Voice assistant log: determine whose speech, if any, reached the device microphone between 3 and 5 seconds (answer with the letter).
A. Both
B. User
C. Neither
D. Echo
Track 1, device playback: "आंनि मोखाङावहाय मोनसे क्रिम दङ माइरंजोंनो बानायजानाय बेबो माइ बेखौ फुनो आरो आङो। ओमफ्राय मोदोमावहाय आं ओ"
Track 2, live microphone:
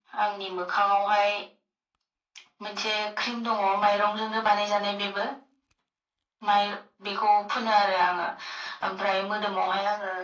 D